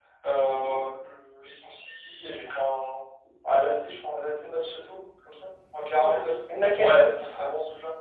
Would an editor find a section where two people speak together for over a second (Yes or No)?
No